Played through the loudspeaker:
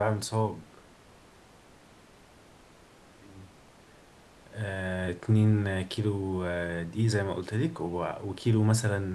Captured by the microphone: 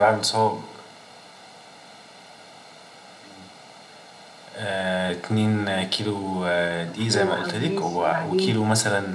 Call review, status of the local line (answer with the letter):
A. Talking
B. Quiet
A